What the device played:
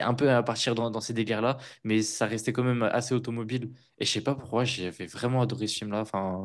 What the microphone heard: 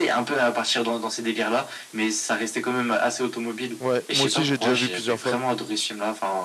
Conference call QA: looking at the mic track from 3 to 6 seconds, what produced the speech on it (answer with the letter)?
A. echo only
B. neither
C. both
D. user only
C